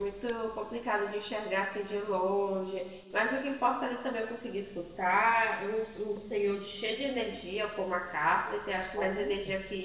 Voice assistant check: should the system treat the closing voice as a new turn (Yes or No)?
No